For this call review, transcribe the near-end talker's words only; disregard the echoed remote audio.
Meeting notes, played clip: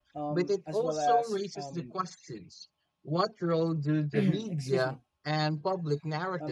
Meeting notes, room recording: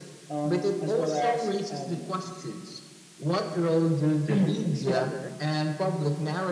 However,

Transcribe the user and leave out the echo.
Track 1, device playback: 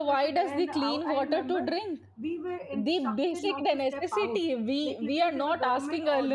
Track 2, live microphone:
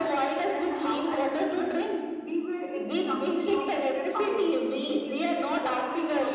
none

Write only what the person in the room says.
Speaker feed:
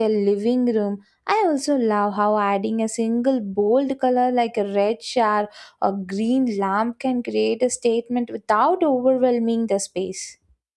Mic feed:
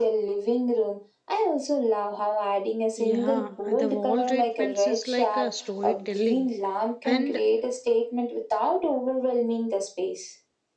Yeah, the wall treatments is like a storytelling. And

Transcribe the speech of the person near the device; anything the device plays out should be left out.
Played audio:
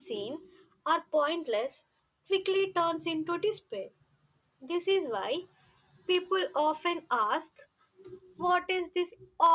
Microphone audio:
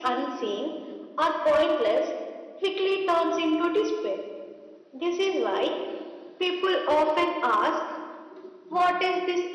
none

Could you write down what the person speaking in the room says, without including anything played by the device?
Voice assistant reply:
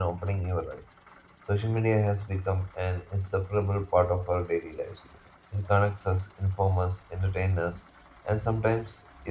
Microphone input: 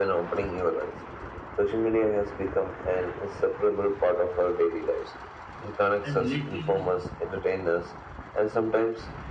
And lately, you know,

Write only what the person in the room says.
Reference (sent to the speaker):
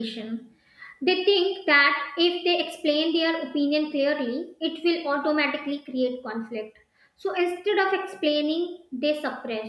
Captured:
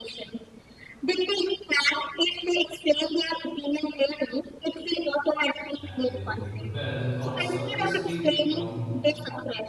and they don't prepare their thoughts. Uh, they speak from

